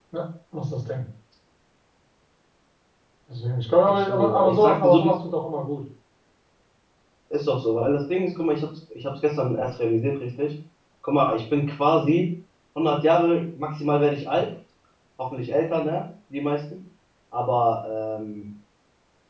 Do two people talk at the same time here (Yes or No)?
Yes